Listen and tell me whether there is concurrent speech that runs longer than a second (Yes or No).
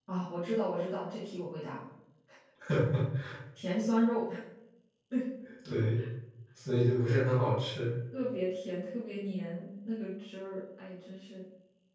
No